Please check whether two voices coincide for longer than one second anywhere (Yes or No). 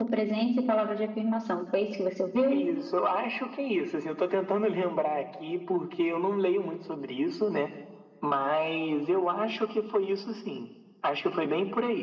No